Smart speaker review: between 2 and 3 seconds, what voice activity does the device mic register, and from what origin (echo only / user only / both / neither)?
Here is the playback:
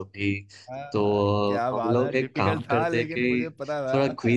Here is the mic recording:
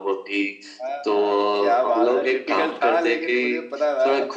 echo only